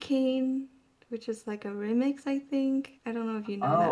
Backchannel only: No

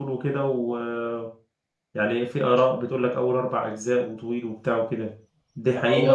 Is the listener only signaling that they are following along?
No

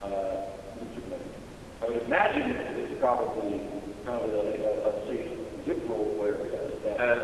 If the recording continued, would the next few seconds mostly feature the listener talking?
Yes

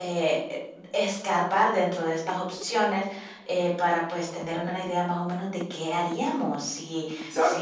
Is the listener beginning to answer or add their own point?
No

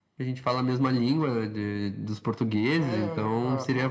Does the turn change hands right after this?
Yes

